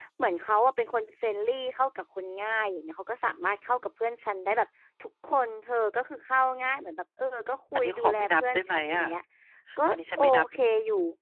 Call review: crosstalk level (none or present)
present